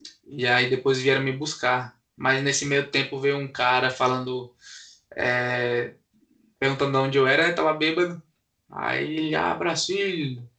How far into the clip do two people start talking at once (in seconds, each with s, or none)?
none